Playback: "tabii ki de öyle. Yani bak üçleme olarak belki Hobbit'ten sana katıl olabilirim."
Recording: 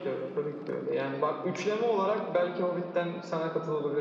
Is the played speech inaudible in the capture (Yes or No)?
No